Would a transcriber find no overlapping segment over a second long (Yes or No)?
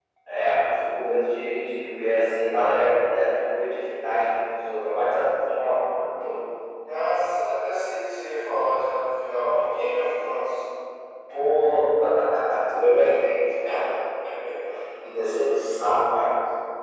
Yes